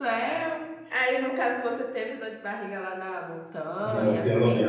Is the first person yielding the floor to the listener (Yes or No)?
Yes